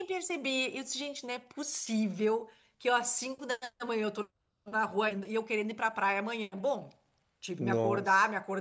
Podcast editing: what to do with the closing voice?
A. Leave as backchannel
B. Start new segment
A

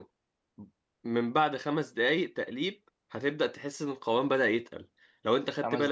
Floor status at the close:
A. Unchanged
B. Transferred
A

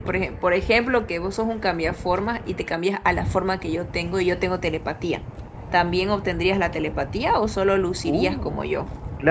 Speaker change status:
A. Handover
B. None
A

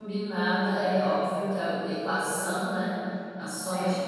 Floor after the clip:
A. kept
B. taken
A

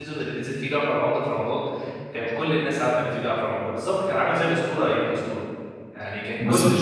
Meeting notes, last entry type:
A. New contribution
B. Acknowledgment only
B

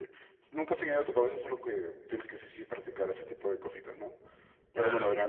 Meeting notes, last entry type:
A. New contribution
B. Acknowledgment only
B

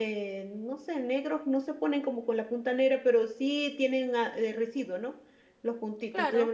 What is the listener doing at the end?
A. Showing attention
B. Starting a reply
A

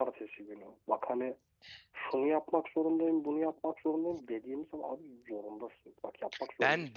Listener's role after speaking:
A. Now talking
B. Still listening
B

